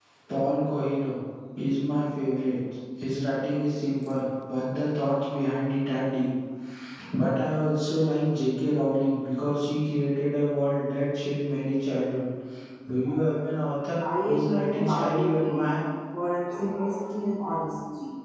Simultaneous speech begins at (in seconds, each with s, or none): 14.3 s